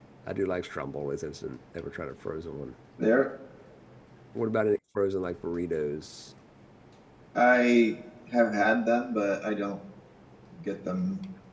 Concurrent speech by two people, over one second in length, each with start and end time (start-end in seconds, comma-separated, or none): none